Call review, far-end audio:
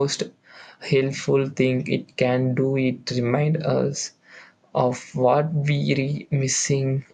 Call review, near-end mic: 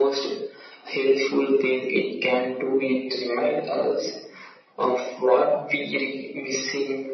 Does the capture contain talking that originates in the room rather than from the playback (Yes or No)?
No